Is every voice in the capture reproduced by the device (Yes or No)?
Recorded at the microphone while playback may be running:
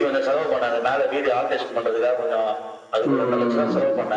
No